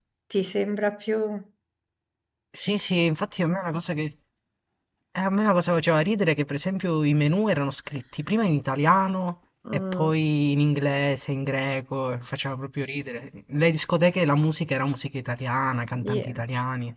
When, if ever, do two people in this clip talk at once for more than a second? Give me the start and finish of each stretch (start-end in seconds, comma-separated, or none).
none